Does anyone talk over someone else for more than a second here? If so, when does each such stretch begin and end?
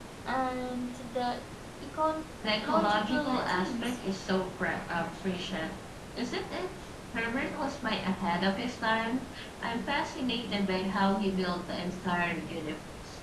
2.6-4.0

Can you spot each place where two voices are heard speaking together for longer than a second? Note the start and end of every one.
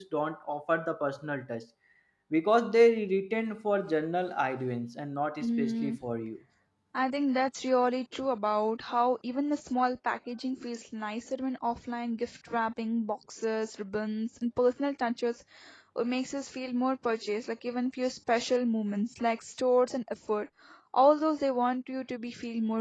none

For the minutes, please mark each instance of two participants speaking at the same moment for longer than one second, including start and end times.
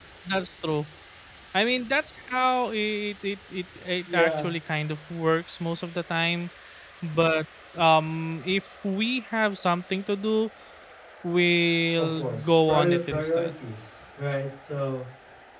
12.0-13.5

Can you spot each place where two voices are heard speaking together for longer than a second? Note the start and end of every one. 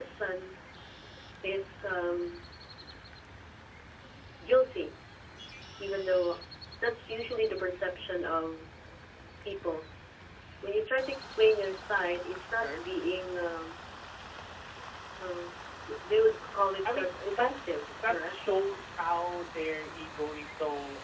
16.9-18.3

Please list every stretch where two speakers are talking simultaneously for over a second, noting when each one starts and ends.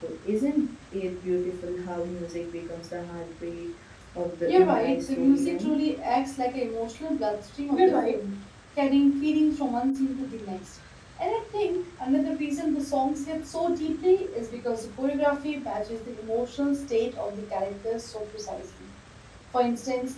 4.5-5.7

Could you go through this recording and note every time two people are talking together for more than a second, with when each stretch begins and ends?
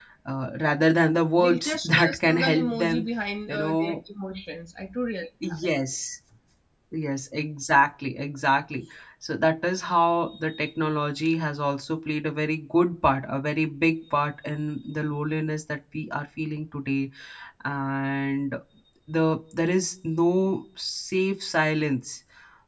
1.4-3.0

